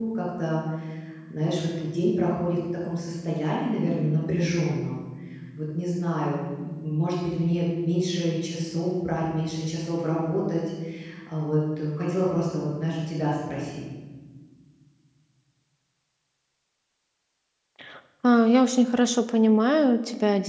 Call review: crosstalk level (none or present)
none